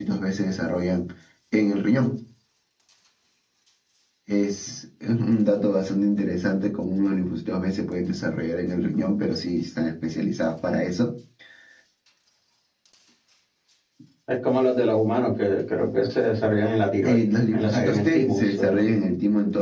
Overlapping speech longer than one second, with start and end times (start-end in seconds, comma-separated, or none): 17.0-18.9